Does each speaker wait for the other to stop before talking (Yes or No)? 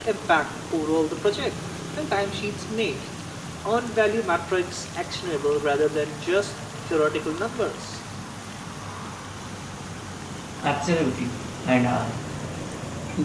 Yes